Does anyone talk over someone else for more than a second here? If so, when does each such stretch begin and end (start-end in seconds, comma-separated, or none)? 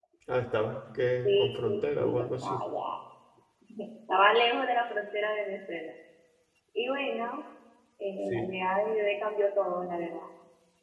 1.2-2.6